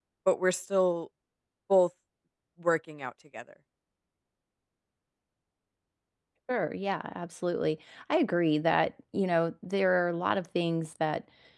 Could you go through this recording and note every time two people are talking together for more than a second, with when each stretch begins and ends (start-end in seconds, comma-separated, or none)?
none